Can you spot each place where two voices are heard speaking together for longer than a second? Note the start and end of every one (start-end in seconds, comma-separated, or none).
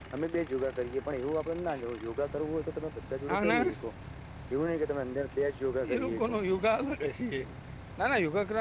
none